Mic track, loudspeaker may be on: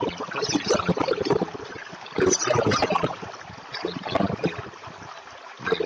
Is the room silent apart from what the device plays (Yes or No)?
Yes